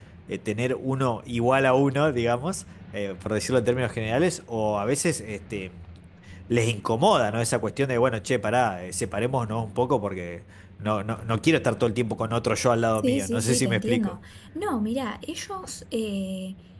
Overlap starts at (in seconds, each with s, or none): 12.9 s